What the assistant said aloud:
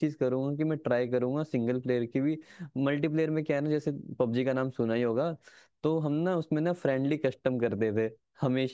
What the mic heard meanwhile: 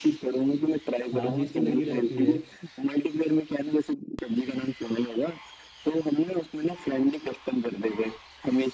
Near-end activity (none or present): present